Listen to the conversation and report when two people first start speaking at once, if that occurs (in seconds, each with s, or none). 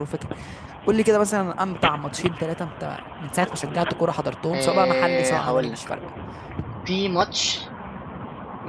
4.5 s